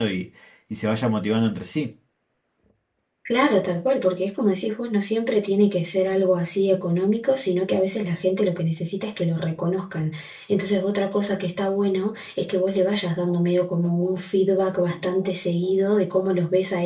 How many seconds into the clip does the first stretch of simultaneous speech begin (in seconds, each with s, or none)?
none